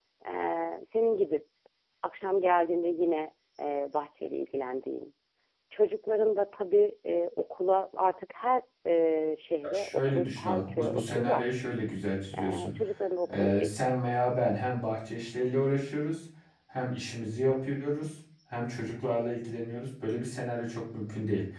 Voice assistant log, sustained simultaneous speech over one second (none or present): present